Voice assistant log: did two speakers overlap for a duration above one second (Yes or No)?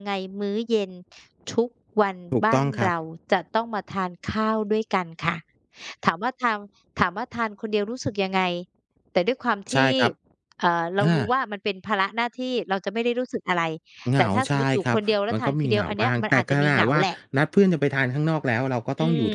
Yes